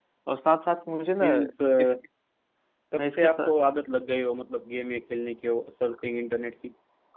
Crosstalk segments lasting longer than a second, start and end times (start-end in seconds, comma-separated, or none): none